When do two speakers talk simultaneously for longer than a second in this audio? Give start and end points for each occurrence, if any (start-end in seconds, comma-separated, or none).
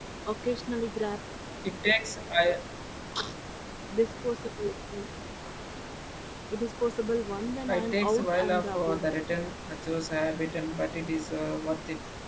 7.7-9.0